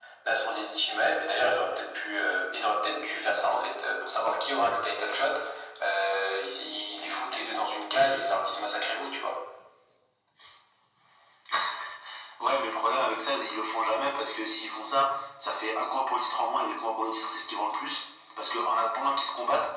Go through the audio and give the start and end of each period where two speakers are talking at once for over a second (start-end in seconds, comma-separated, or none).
none